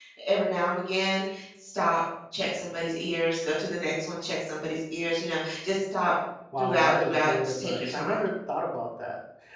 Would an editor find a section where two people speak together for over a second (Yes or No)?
Yes